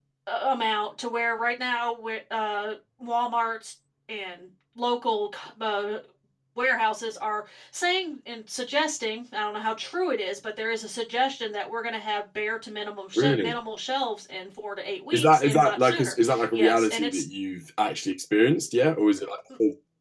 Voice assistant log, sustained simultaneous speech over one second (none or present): present